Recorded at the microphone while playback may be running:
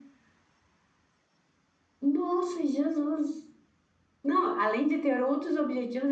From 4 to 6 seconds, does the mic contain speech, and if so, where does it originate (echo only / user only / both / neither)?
echo only